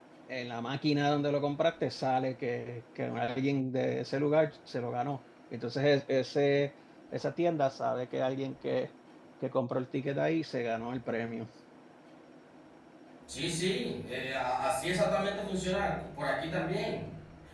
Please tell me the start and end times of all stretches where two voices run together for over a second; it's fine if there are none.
none

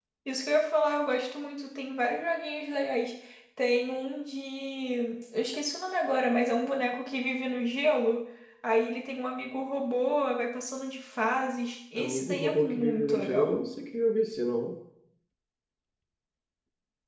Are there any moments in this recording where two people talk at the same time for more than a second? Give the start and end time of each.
11.9-13.6

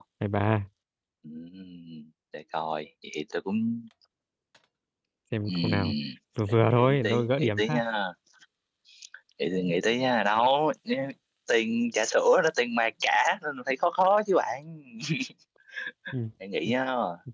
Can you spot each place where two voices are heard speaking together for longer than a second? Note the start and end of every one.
6.5-7.8

